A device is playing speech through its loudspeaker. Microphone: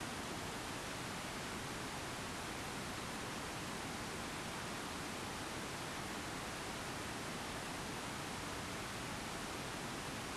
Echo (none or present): none